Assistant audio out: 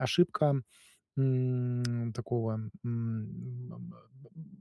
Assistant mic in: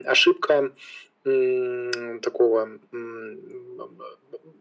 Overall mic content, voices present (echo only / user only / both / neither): echo only